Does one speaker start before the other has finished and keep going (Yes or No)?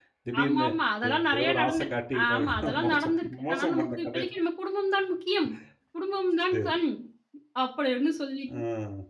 Yes